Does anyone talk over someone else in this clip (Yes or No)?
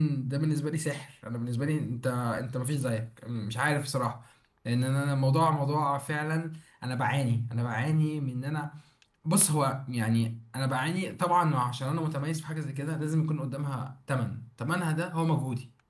No